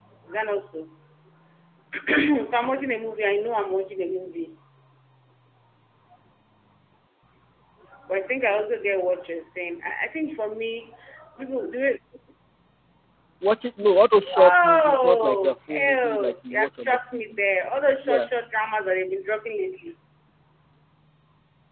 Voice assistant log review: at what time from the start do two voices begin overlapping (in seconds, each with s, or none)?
14.3 s